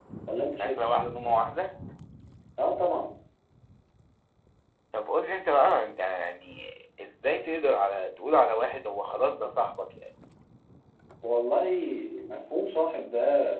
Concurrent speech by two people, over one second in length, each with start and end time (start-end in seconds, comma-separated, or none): none